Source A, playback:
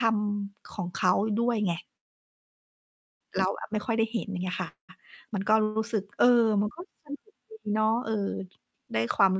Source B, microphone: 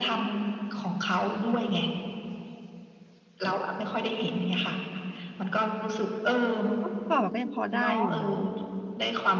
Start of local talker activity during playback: 7.1 s

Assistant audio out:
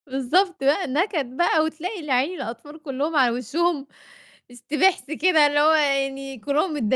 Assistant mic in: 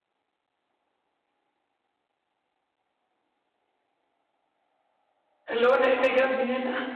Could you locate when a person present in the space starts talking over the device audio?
5.5 s

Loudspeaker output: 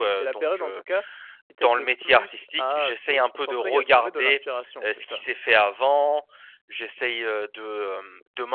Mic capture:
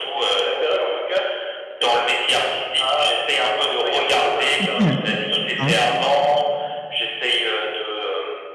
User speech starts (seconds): 4.6 s

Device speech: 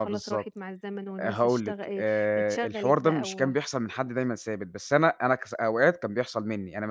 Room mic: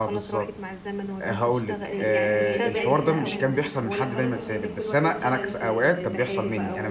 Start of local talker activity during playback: 1.9 s

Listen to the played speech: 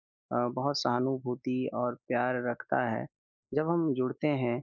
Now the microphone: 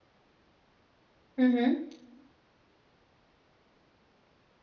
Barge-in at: 1.4 s

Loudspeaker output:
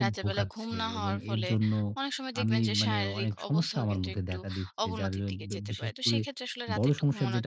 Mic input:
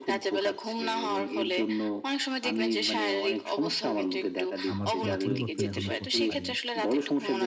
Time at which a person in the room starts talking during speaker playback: 4.7 s

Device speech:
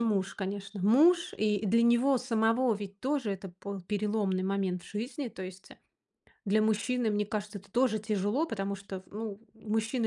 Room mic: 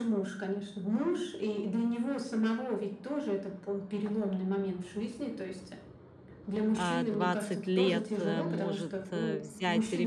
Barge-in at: 6.8 s

